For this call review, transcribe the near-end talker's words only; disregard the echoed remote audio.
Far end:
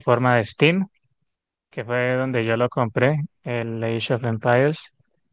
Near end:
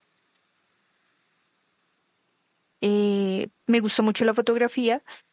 eh, me gusta mucho la fotografía

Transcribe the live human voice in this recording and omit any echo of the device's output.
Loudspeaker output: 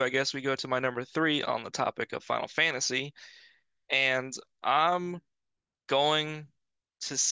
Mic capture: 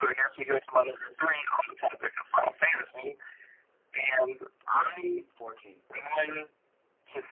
14, fourteen, fourteen.

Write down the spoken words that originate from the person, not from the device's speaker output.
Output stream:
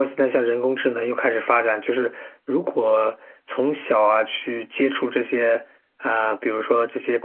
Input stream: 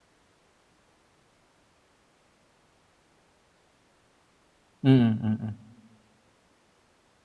嗯嗯嗯

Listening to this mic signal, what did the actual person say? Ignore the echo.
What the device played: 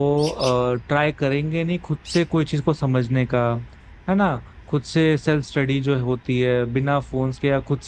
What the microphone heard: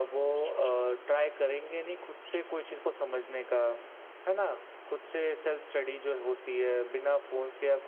none

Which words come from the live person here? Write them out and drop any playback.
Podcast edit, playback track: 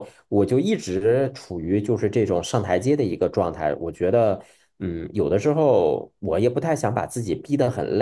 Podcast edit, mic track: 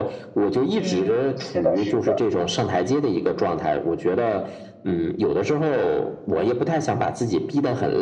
嗯，是的，是的。

